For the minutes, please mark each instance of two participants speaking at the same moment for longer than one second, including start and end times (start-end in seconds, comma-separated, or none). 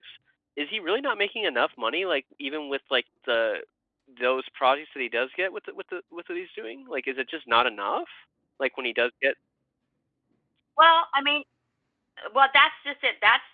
none